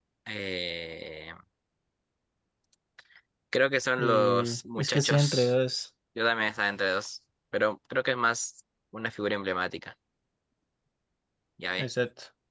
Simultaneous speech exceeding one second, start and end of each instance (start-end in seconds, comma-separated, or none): 4.0-5.5